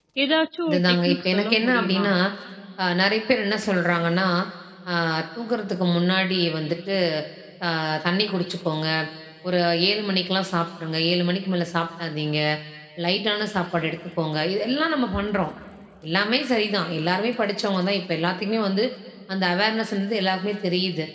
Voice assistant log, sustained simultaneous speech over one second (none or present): present